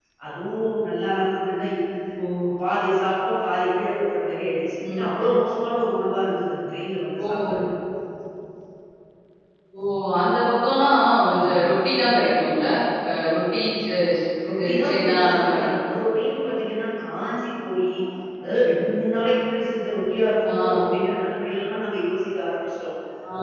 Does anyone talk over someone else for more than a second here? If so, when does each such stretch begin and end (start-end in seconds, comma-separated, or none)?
14.5-15.7